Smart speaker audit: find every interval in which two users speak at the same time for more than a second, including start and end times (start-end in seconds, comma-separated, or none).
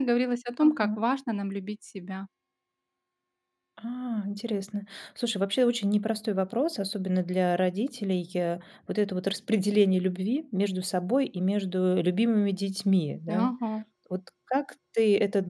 none